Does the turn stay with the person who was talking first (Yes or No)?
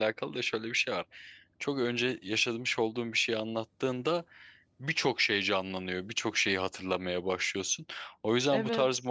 Yes